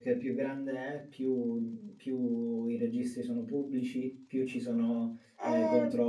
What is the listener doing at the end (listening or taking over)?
listening